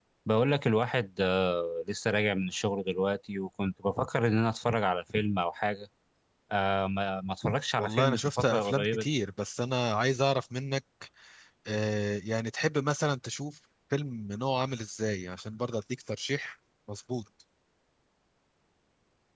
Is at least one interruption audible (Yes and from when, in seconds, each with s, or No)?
Yes, from 7.8 s